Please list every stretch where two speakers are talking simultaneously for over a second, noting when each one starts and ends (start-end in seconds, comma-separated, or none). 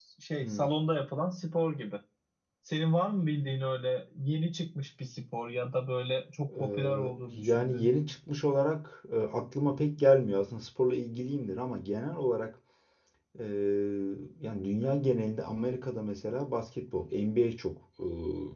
6.6-7.9